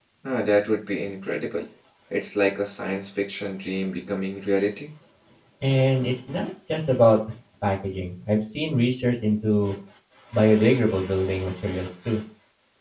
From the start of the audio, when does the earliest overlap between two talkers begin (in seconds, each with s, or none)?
none